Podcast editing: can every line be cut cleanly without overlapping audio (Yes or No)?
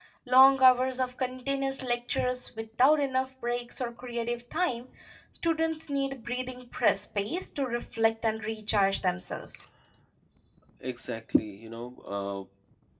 Yes